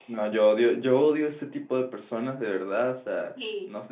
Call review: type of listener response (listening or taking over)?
listening